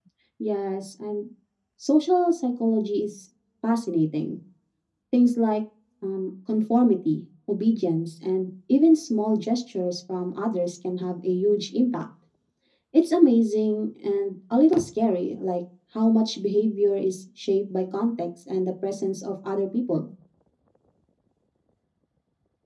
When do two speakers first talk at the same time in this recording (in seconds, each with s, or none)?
none